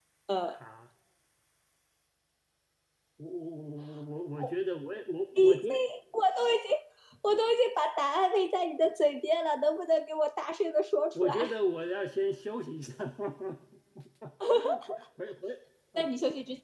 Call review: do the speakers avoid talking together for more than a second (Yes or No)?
Yes